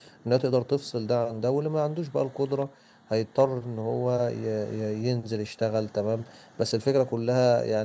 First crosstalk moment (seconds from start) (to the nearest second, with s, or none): none